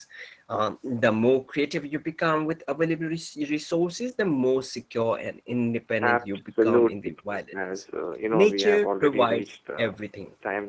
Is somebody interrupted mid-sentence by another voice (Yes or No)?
Yes